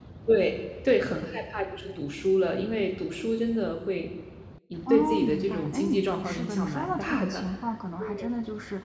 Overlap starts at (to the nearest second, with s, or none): 5 s